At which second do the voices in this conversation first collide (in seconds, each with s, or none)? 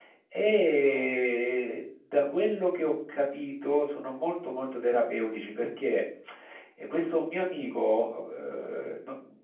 none